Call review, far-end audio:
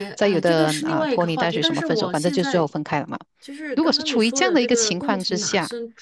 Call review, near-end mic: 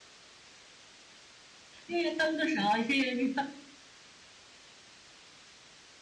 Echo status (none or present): none